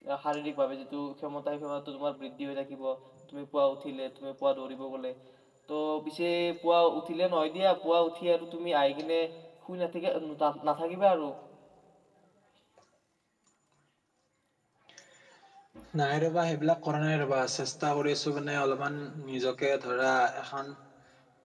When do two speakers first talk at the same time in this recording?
none

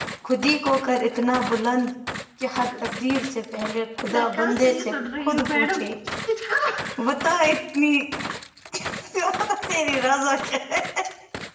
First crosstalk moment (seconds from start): 4.0 s

